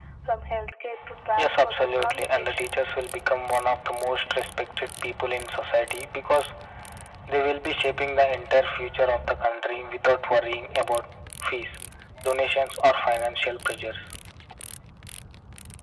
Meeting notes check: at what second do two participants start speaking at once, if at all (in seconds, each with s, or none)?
1.4 s